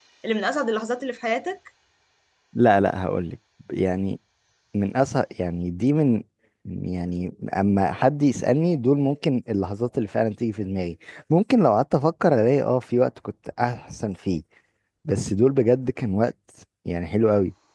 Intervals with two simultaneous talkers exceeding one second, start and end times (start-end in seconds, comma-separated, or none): none